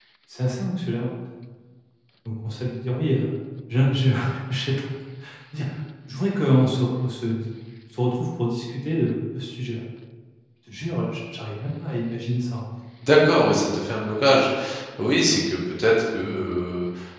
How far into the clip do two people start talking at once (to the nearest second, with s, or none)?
none